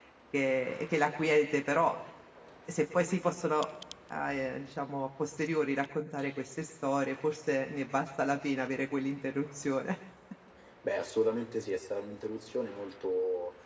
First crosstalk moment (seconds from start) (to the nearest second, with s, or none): none